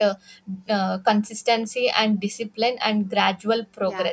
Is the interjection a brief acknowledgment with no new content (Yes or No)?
No